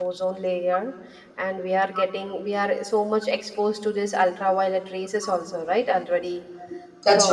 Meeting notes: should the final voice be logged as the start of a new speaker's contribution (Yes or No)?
No